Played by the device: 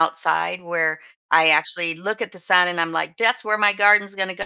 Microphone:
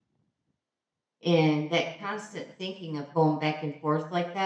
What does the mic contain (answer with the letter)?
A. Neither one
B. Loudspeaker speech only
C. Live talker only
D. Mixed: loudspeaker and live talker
C